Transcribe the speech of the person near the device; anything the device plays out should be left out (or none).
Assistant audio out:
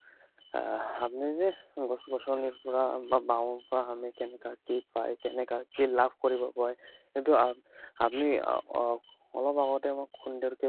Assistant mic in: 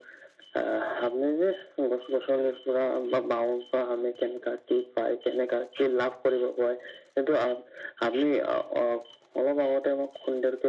none